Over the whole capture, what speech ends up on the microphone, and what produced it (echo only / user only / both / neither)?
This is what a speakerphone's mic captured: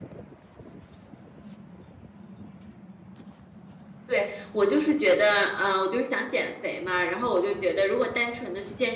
user only